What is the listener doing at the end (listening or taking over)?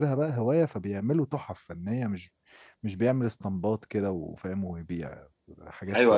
taking over